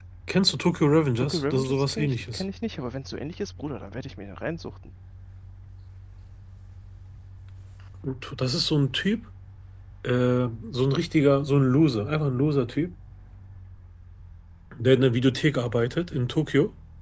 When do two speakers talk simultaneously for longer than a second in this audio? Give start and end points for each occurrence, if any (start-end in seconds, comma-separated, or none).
1.2-2.4